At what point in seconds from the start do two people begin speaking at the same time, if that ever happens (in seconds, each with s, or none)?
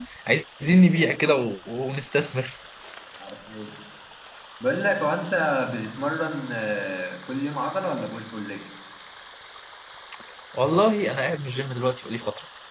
none